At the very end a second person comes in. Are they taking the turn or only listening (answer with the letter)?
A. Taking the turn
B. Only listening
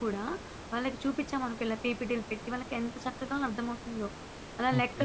A